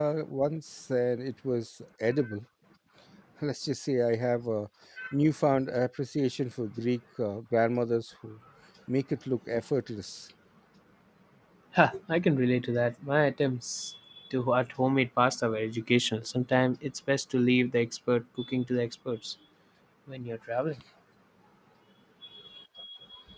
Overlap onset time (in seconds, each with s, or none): none